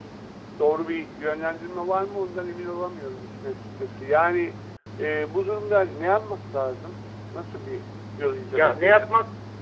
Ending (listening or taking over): taking over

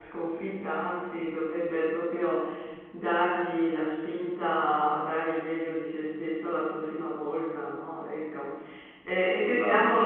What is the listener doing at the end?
listening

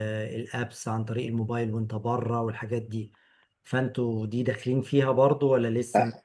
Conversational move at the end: taking over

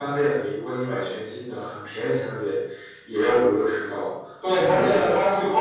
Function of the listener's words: taking over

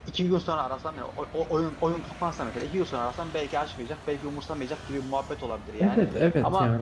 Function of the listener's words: taking over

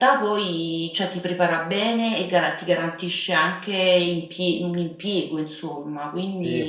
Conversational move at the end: taking over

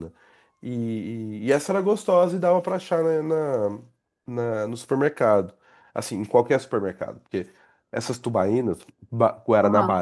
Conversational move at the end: listening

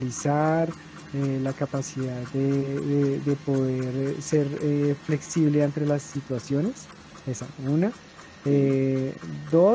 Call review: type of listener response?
listening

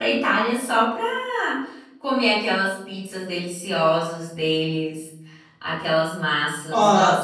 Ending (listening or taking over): taking over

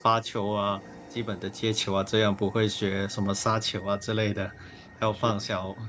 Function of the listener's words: listening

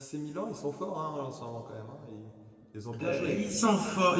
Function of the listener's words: taking over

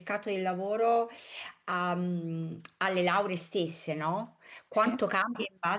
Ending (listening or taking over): listening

